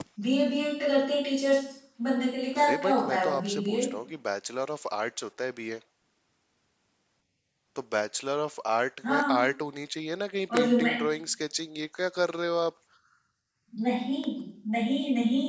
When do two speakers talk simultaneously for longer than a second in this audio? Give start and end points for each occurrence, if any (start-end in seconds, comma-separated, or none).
2.6-3.9